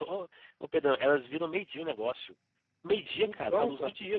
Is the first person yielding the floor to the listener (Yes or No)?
No